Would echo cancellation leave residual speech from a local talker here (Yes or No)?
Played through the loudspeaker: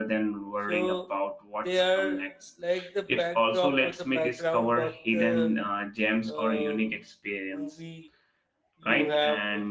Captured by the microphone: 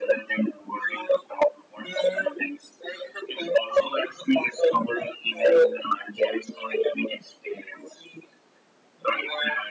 No